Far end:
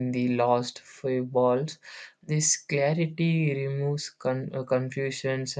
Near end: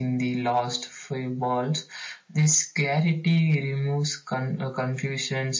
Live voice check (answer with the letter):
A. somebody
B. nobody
B